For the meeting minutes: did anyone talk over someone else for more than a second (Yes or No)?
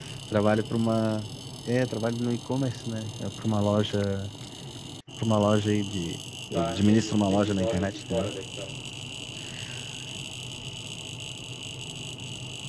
Yes